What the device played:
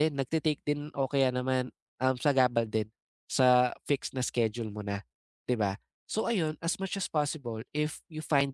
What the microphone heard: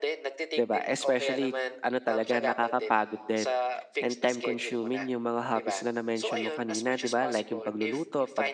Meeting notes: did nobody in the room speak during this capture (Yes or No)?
No